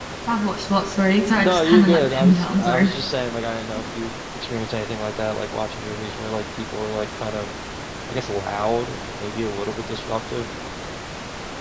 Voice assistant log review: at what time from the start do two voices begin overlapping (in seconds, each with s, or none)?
1.3 s